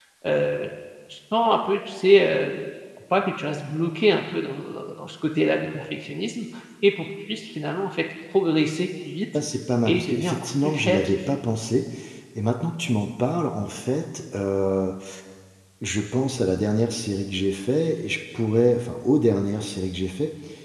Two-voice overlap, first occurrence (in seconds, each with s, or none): 9.9 s